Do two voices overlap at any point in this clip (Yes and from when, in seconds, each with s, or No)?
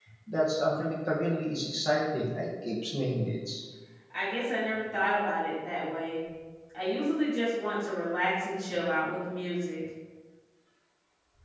No